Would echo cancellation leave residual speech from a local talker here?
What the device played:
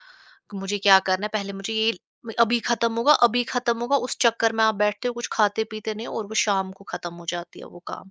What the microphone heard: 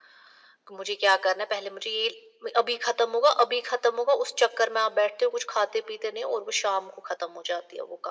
No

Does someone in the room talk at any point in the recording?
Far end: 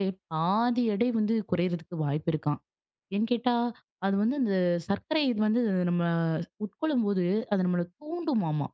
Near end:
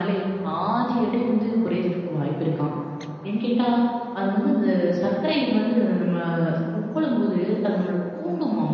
No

